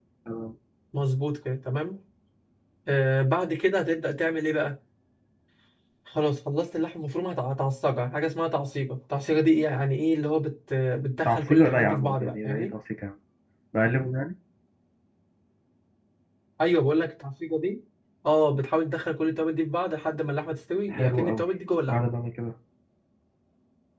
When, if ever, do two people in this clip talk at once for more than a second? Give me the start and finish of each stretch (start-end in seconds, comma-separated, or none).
11.2-12.7